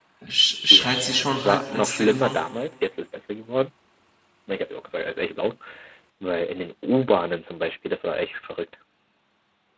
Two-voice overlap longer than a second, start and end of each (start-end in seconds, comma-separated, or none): 0.7-2.4